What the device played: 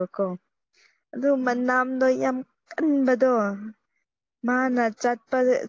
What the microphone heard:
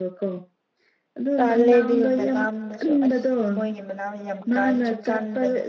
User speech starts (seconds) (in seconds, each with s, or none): 1.4 s